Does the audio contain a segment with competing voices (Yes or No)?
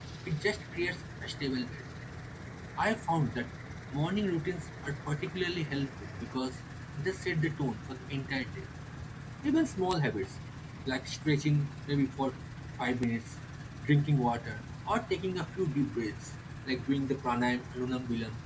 No